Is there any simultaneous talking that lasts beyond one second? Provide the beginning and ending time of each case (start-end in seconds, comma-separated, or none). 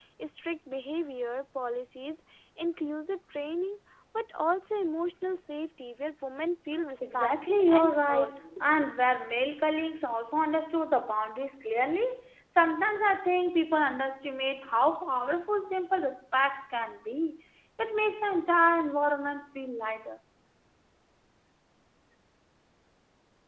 7.0-8.3